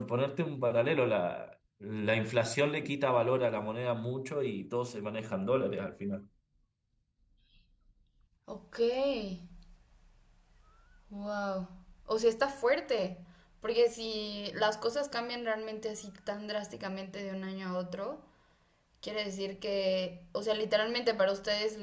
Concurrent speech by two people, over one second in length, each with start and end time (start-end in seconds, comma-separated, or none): none